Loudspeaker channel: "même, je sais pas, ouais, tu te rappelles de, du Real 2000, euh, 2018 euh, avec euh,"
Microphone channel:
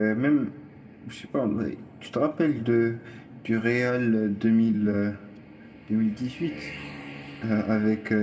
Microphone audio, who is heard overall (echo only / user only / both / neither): echo only